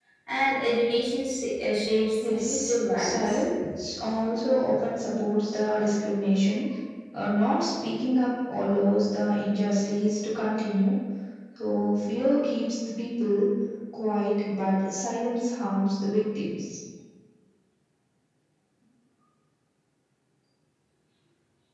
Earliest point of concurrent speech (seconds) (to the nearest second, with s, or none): 2 s